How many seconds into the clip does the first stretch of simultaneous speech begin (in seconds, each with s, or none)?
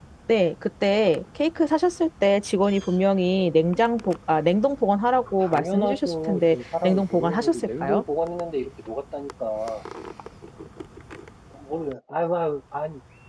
5.4 s